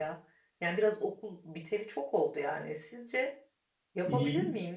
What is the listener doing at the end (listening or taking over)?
taking over